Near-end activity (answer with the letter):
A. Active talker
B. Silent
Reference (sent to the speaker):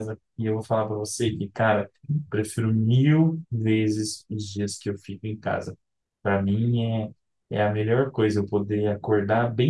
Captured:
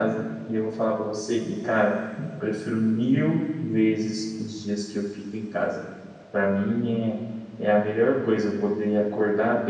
B